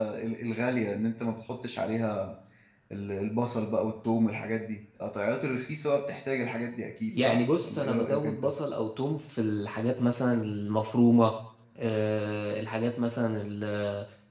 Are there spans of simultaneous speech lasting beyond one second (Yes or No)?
Yes